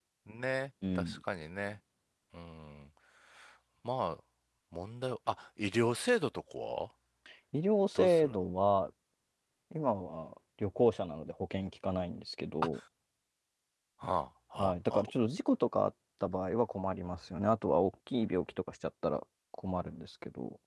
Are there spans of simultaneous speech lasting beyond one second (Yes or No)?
No